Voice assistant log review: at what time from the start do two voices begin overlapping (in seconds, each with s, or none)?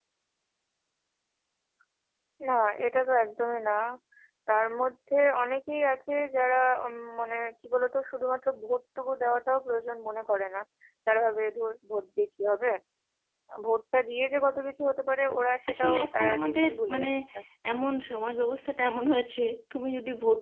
15.7 s